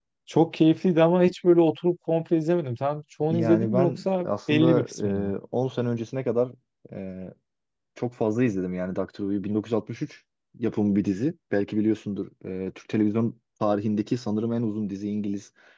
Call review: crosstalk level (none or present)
present